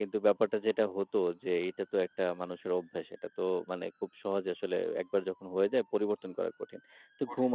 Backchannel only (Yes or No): Yes